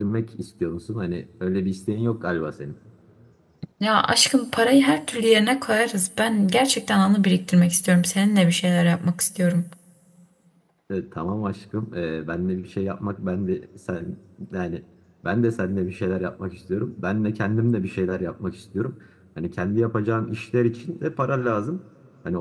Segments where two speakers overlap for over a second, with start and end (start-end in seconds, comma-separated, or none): none